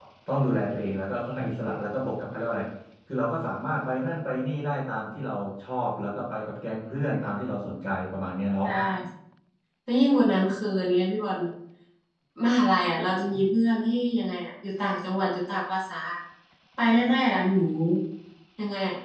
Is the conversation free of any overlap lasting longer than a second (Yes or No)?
Yes